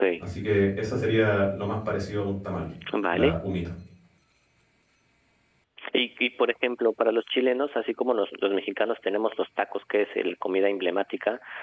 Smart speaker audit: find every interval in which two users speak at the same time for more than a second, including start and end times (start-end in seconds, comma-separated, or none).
none